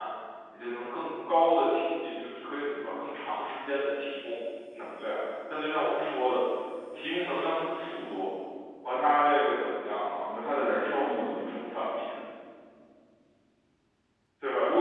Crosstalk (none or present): present